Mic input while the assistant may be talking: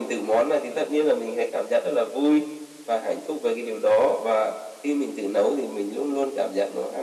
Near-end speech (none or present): none